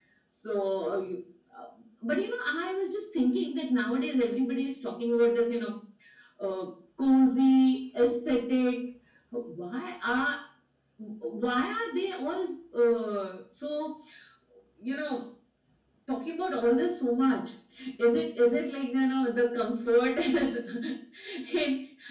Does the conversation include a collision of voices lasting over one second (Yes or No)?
No